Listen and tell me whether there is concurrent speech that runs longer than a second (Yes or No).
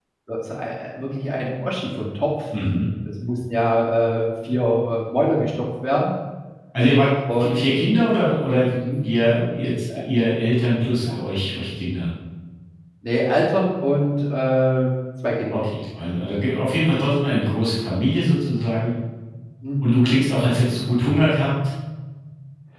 No